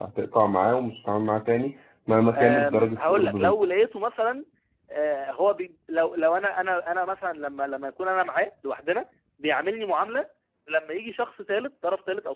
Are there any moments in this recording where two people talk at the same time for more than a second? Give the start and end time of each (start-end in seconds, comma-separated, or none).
2.4-3.6